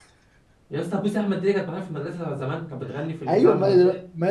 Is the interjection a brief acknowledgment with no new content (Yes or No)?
No